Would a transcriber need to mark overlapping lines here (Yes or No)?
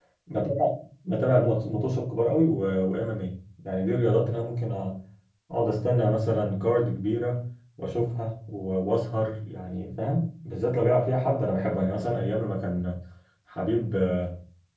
No